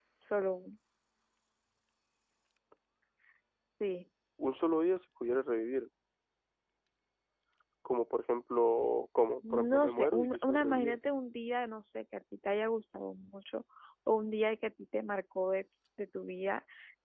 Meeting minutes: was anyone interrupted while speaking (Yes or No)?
Yes